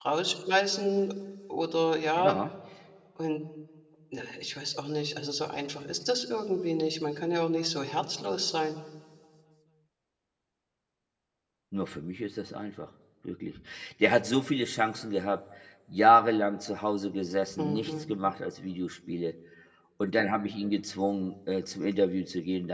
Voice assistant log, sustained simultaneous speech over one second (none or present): none